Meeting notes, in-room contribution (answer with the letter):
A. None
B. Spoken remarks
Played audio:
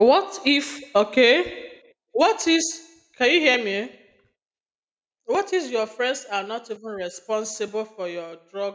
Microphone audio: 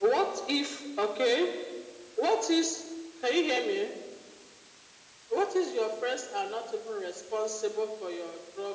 A